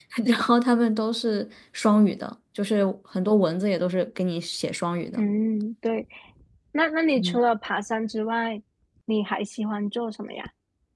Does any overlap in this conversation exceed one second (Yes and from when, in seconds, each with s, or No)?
No